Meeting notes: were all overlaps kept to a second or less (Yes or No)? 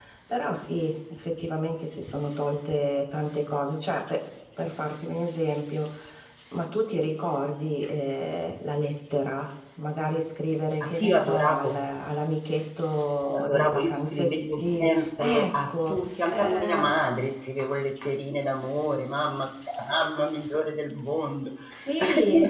No